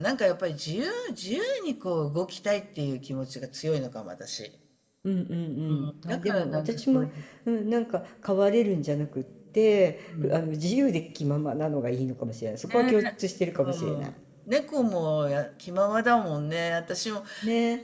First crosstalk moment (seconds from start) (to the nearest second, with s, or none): 6 s